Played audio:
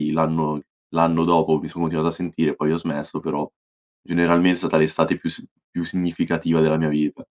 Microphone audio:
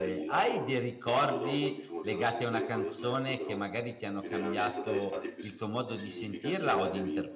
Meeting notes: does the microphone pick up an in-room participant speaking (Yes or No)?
Yes